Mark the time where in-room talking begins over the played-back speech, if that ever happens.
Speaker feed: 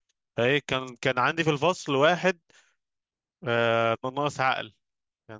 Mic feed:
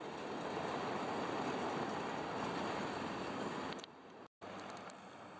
none

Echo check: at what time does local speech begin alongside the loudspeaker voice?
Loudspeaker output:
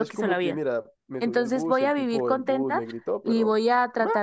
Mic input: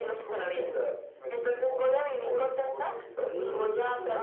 3.2 s

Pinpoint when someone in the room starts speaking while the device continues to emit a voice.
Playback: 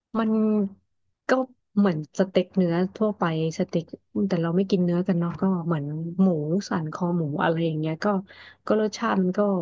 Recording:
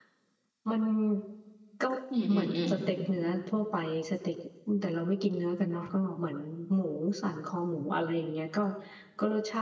2.1 s

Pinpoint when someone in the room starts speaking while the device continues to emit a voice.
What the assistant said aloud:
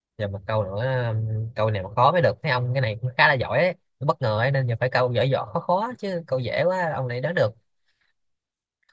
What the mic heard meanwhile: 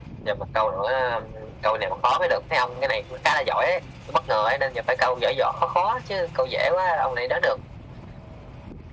none

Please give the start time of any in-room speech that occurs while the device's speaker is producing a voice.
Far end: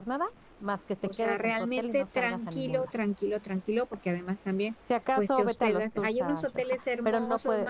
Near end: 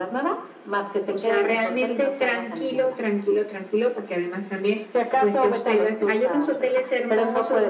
none

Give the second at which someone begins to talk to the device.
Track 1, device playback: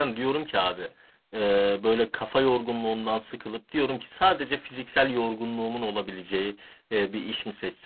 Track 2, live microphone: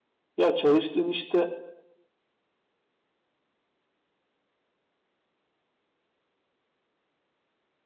0.4 s

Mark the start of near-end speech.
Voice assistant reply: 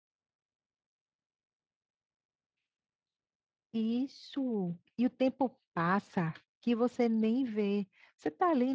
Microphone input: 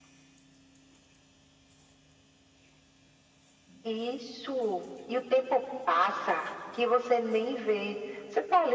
none

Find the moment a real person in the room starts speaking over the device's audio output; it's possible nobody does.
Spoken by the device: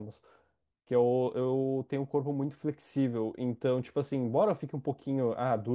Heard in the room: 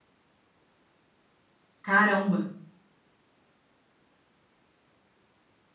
1.8 s

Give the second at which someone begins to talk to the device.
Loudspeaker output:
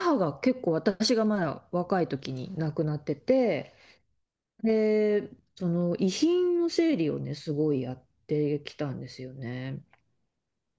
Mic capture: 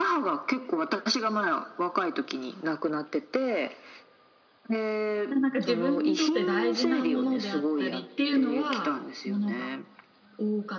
5.3 s

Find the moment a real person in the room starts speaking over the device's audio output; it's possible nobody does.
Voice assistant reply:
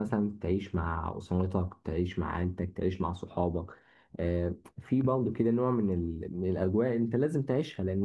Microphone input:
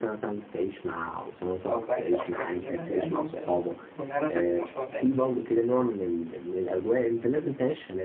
1.7 s

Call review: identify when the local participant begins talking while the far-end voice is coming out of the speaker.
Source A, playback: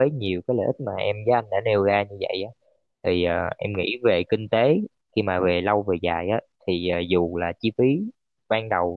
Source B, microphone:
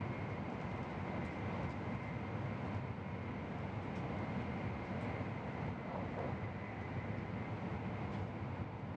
none

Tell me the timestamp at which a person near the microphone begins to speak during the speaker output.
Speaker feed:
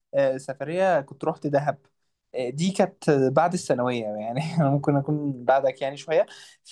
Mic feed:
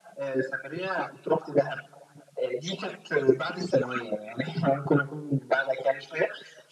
none

